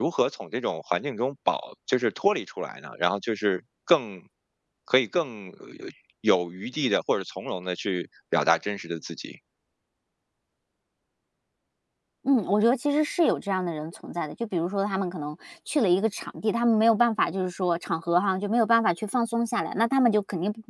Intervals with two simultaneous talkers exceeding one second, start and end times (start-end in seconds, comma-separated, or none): none